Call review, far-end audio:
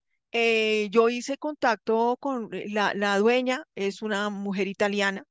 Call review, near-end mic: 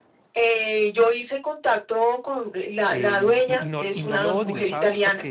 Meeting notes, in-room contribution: present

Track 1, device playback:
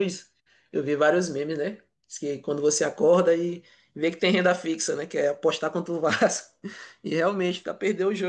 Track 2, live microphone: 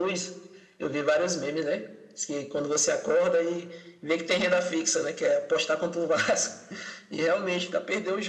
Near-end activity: none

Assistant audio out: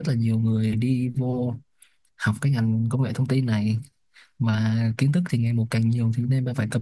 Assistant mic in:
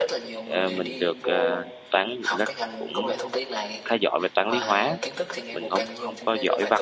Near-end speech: present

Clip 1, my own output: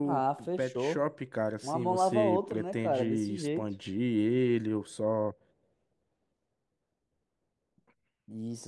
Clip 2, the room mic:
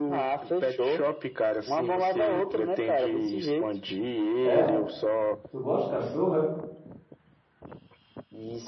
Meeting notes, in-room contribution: present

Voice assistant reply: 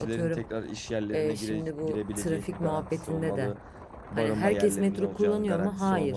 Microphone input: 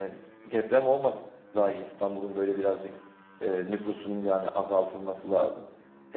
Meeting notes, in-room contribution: present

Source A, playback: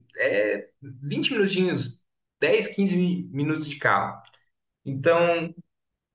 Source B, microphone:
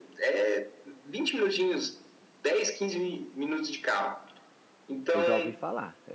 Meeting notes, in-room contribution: present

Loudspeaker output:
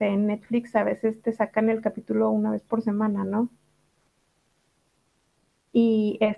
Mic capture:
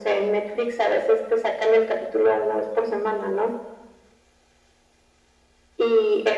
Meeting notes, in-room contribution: none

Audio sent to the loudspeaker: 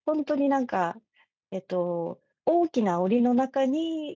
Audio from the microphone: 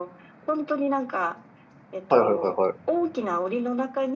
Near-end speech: present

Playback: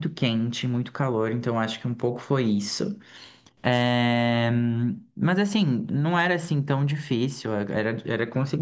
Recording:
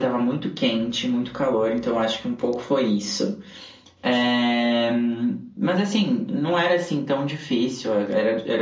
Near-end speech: none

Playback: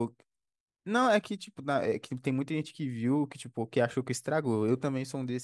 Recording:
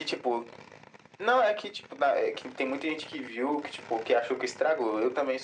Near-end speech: none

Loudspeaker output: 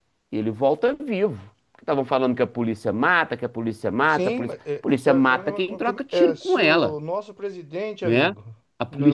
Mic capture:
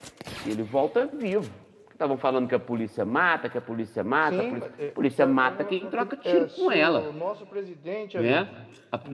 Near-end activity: none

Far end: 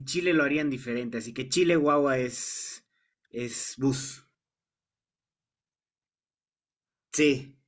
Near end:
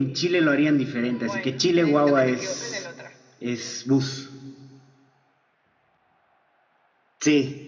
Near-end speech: present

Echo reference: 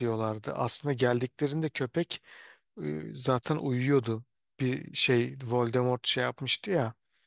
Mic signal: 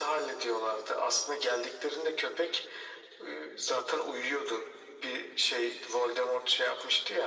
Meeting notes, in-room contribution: none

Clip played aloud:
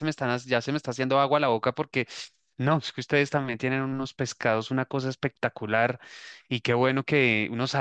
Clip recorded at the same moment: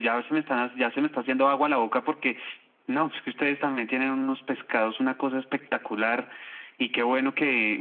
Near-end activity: none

